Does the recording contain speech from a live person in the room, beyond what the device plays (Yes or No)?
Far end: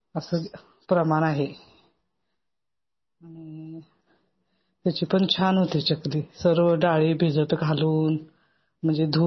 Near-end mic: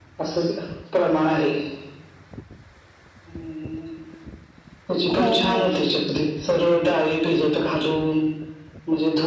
Yes